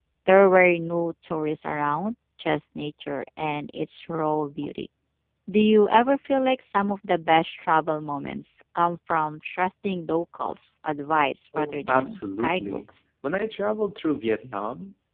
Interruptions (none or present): present